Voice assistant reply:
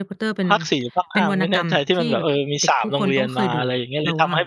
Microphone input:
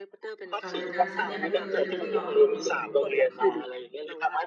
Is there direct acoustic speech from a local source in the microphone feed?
Yes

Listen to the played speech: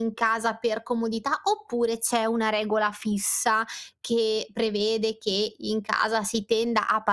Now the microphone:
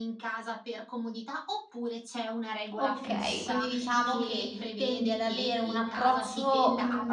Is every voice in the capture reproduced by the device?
No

